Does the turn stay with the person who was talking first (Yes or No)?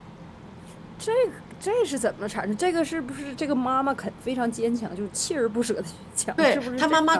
No